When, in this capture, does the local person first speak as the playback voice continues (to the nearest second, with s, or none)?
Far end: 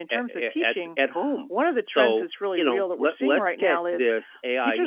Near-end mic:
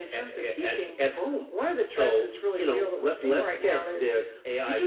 none